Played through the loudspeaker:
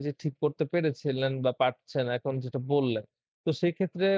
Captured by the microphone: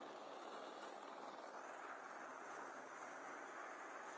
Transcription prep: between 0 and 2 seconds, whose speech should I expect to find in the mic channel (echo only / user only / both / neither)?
neither